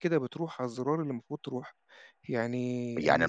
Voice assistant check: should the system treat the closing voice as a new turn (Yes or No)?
Yes